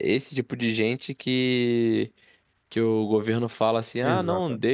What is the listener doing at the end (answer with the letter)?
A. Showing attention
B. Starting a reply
A